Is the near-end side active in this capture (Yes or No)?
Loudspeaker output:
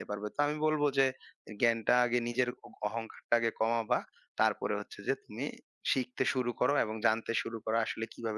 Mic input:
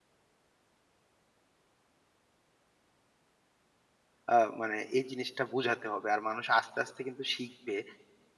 Yes